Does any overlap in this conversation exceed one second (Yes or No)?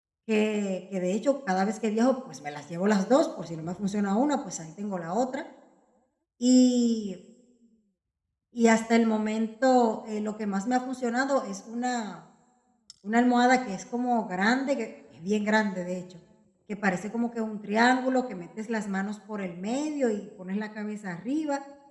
No